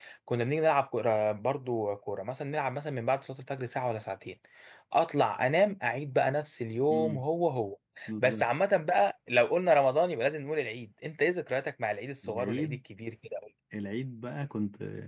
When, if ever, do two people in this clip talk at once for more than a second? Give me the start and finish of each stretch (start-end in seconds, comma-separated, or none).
none